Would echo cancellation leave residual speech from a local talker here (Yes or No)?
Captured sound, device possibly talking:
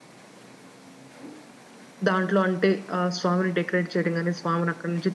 Yes